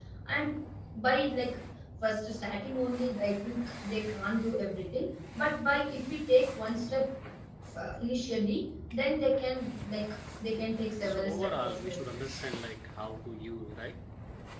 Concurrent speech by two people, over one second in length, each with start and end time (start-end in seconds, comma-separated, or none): 11.0-12.4